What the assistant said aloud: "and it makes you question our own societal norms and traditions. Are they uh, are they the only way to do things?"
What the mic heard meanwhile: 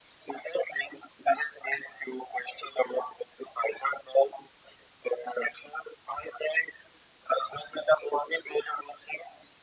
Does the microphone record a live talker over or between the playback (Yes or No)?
No